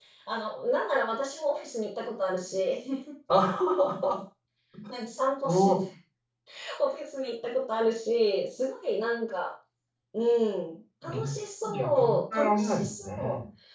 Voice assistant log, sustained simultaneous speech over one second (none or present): present